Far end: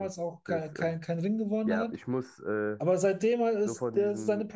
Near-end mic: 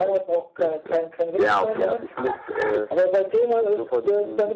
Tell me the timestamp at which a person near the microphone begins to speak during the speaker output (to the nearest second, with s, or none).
1 s